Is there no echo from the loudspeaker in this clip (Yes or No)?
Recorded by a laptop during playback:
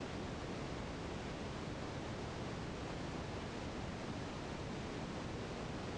Yes